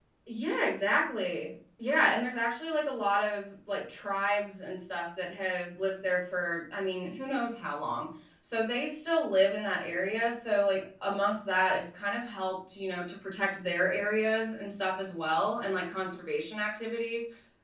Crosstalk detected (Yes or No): No